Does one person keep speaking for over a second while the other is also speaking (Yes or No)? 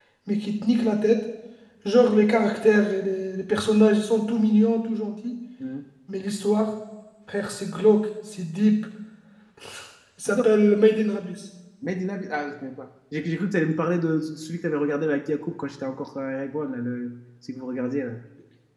No